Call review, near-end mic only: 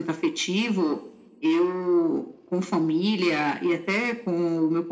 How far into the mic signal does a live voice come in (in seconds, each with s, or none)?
none